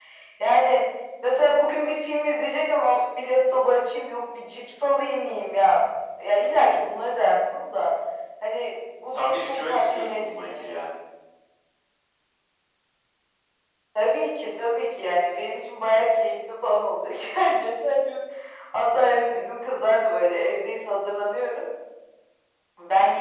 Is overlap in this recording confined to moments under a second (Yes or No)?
No